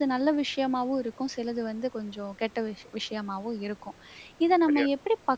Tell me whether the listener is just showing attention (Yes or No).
Yes